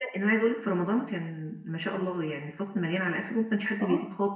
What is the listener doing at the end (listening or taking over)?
taking over